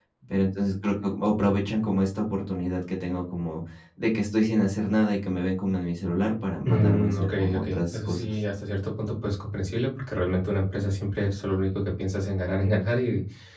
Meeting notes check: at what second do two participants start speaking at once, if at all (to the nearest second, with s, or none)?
7 s